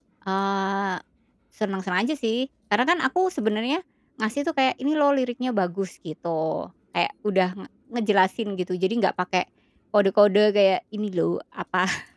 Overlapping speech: No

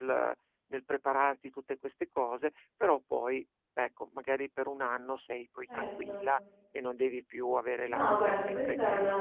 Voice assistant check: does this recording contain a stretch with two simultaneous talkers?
Yes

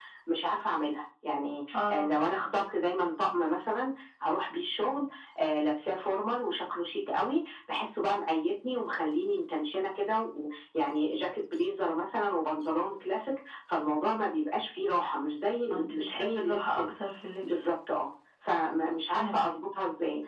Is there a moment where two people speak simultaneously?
Yes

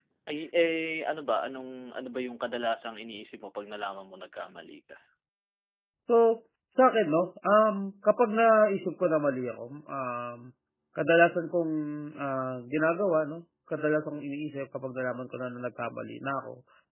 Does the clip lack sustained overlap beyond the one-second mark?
Yes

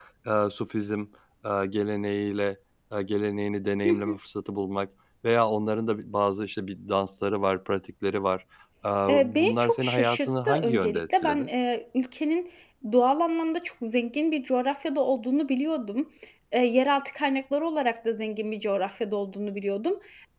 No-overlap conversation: No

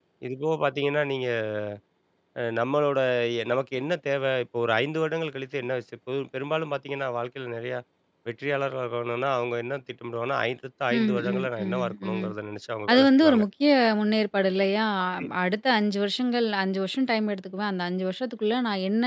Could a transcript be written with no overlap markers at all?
No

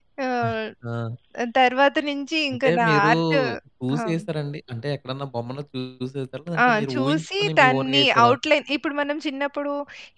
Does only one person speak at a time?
No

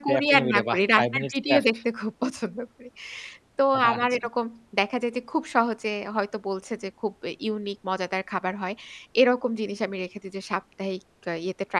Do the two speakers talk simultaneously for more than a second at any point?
Yes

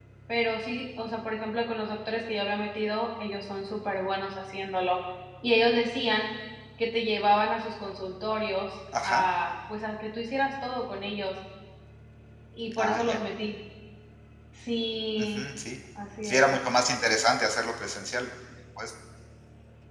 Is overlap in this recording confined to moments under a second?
Yes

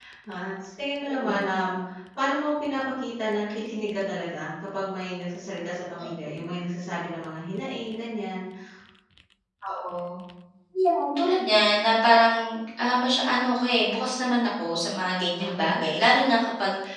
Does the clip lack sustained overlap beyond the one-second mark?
Yes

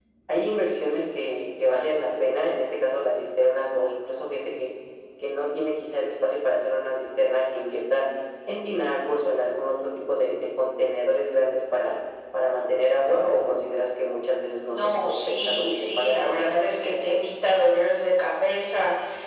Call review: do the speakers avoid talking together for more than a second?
No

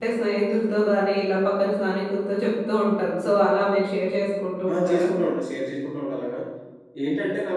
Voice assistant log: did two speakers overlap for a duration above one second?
No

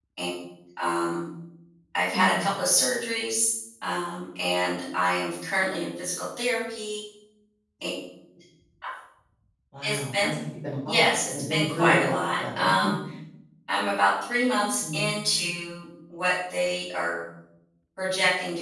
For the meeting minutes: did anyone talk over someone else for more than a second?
Yes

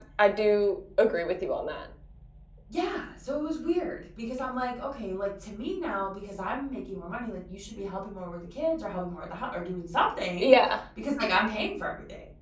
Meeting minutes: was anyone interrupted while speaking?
No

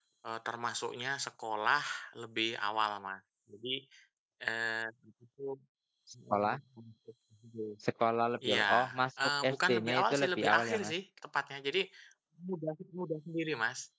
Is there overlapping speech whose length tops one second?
Yes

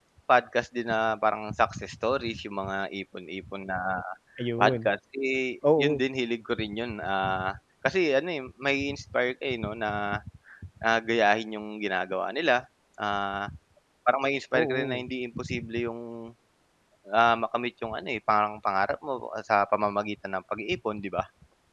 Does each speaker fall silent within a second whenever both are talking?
Yes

